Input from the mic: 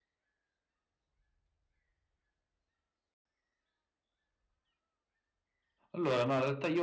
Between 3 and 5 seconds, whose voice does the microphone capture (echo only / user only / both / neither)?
neither